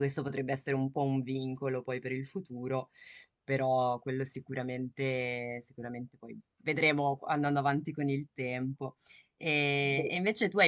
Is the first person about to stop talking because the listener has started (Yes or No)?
No